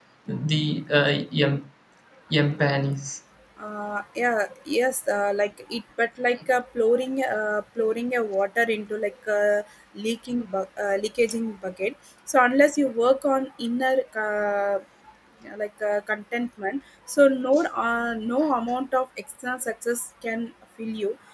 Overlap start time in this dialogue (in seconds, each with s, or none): none